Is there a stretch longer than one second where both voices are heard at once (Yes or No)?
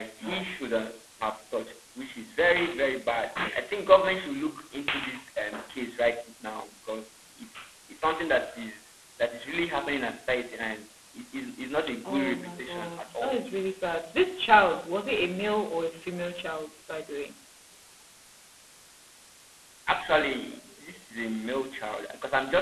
Yes